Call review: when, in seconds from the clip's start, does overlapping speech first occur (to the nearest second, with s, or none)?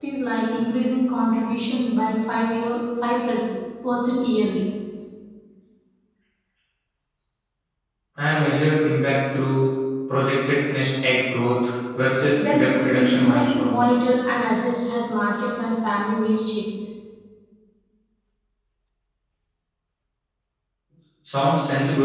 12 s